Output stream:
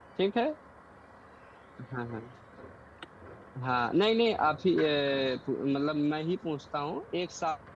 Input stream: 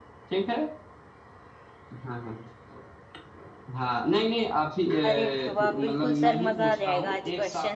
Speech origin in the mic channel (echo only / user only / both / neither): both